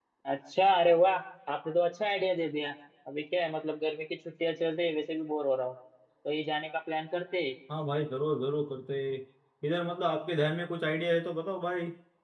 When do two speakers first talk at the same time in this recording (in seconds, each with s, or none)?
none